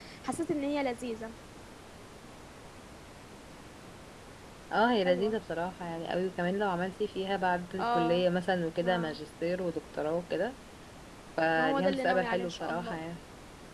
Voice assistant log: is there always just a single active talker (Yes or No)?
No